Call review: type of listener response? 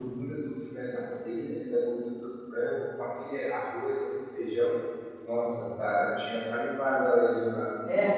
taking over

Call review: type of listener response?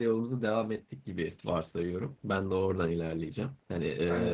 listening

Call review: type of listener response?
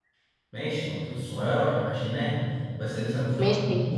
taking over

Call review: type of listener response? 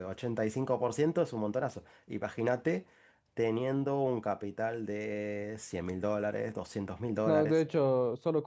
taking over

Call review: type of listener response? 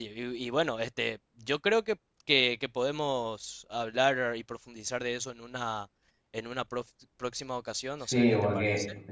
taking over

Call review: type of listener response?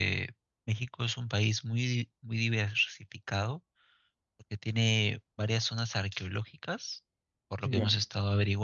listening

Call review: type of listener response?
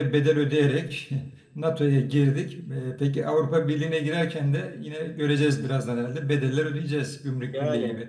taking over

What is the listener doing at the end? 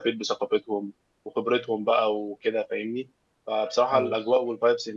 listening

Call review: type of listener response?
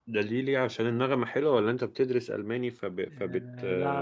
taking over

